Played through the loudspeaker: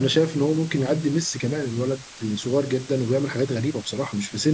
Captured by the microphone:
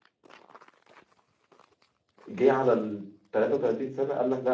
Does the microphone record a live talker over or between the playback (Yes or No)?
Yes